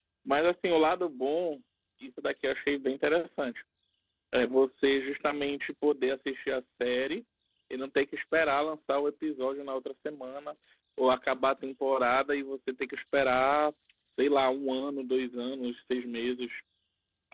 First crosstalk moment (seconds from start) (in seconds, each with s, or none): none